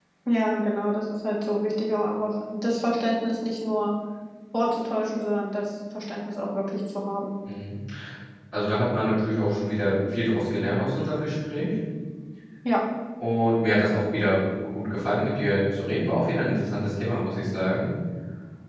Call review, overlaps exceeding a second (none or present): none